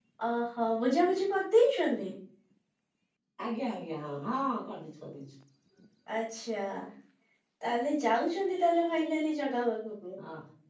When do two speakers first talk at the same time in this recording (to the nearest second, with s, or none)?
none